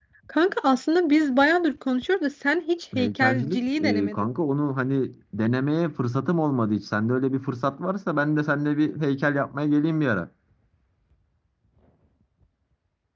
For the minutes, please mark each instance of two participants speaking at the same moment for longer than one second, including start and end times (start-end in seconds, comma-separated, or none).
3.0-4.3